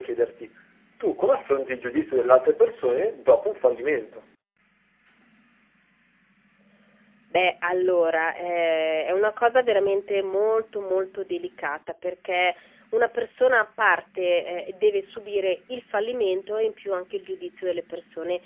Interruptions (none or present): none